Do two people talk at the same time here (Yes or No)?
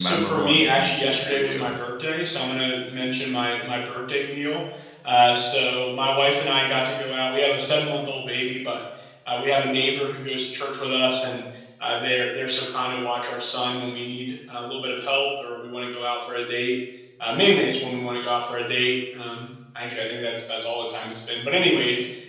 Yes